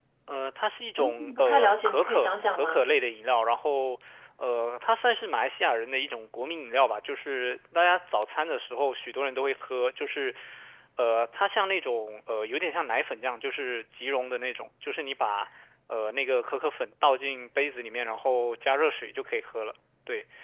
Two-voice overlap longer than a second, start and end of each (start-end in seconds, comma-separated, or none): 1.0-2.9